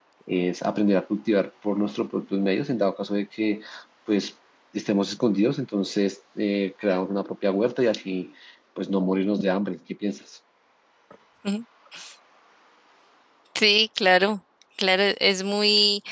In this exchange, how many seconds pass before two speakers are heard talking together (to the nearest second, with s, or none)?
none